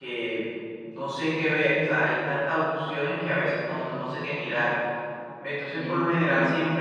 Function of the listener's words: listening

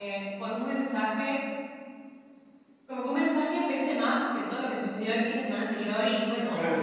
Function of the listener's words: taking over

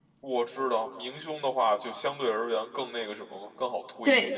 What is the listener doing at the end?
taking over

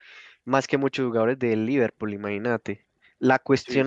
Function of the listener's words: listening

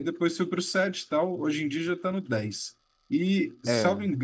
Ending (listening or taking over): listening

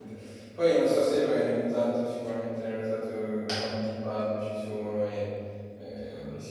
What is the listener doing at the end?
listening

